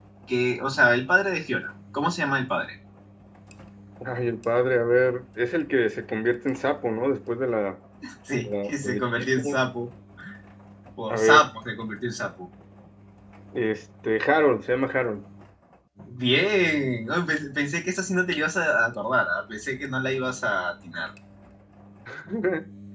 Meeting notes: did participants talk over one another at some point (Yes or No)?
Yes